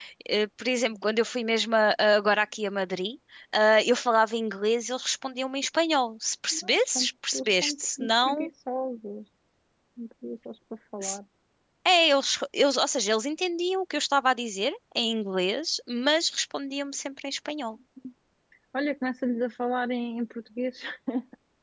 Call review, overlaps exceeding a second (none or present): present